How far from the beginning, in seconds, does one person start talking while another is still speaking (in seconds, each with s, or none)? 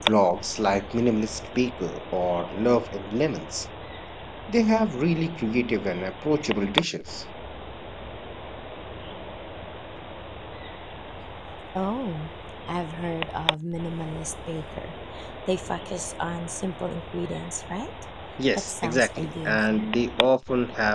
18.6 s